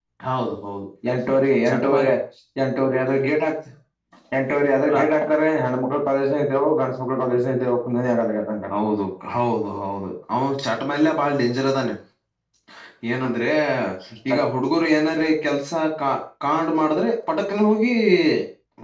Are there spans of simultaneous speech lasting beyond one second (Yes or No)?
No